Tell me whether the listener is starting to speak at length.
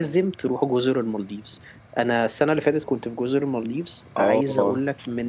No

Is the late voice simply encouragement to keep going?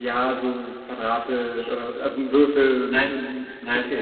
Yes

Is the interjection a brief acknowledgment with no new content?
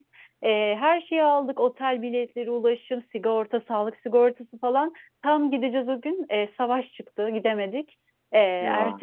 Yes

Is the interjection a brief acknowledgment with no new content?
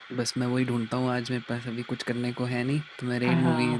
No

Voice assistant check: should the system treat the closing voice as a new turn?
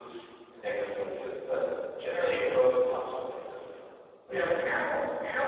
Yes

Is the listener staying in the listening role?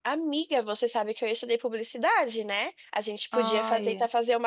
Yes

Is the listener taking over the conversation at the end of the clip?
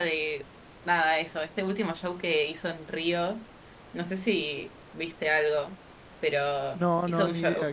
Yes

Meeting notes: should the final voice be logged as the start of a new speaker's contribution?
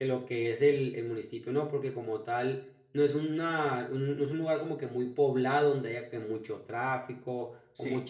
No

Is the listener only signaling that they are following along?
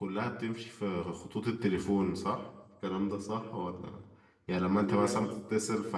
Yes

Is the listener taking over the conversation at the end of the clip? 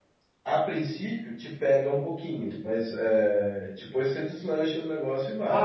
Yes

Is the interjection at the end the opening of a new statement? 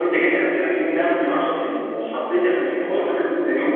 No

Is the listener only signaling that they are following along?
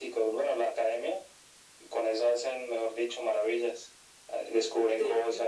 Yes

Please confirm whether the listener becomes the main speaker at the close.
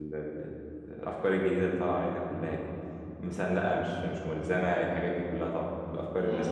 Yes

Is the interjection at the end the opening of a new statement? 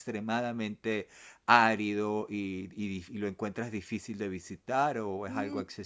Yes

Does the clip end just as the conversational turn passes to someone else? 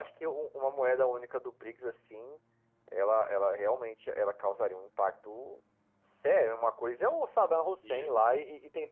No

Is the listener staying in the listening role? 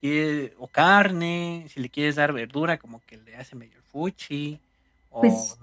Yes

